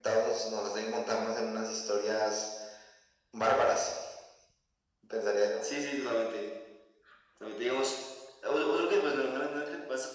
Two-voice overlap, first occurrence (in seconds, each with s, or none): none